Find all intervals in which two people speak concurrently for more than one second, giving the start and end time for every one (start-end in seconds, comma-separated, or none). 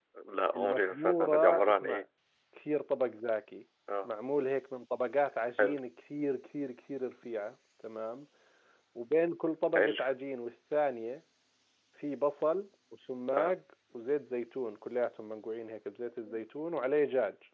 0.5-2.0